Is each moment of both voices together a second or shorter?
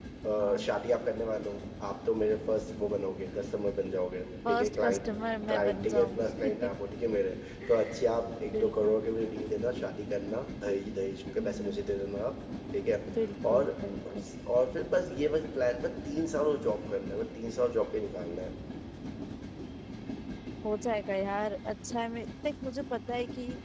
No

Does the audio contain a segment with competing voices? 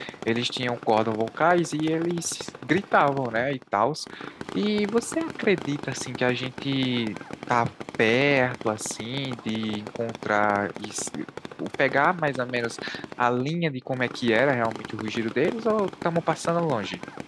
No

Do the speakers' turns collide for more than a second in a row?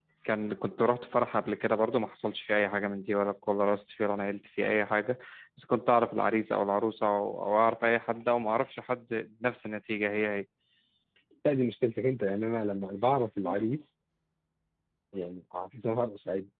No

